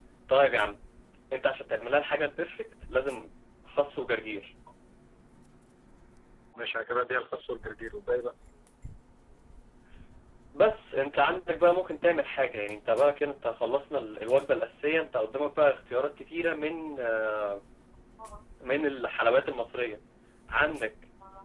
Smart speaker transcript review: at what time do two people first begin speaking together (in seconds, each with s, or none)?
none